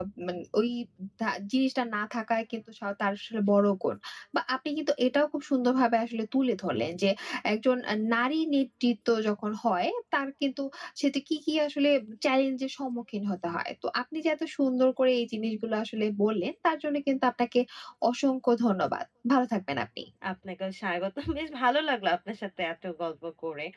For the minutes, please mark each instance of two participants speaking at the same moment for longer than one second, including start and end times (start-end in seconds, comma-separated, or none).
none